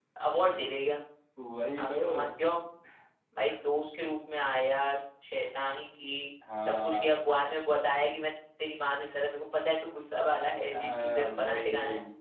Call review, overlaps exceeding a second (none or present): present